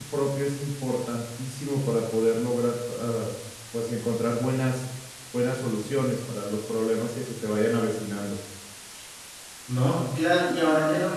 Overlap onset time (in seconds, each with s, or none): none